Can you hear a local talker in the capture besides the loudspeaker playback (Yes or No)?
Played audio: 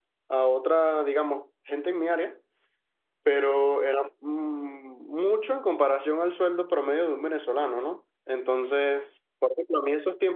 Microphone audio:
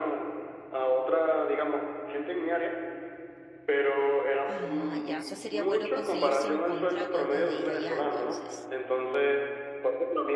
Yes